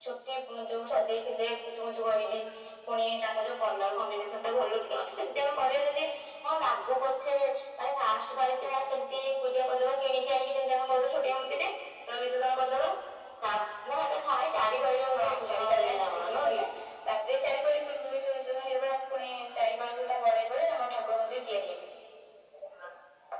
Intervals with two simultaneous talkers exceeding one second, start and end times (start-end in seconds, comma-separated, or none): 15.1-16.6